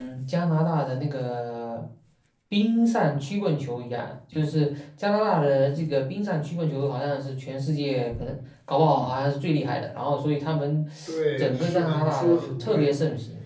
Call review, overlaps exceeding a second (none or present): present